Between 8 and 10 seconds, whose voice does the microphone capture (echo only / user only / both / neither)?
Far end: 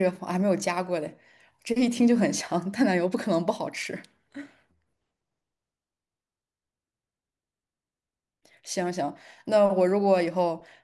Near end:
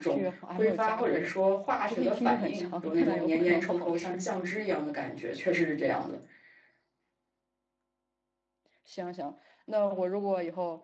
echo only